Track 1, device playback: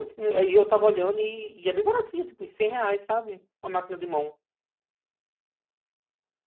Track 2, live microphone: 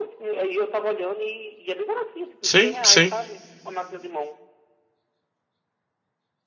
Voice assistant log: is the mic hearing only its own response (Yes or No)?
No